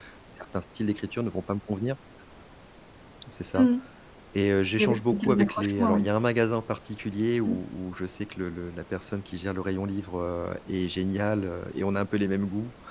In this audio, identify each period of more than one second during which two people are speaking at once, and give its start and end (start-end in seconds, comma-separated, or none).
4.8-6.0